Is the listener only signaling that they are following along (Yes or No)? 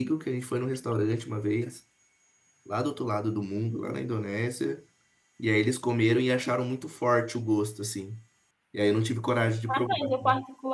No